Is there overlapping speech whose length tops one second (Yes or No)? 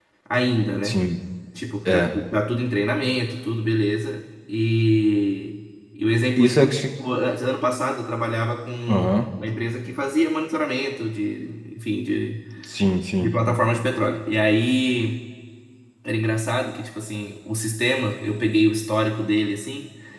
No